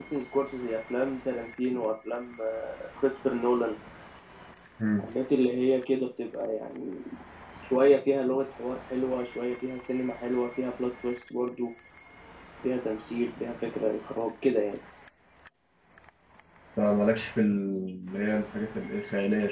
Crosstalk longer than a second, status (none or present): none